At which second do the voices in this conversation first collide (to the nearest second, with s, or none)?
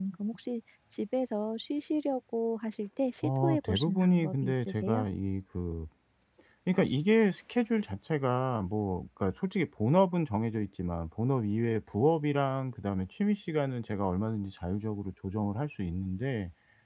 3 s